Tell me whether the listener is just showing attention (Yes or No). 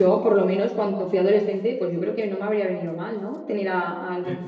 Yes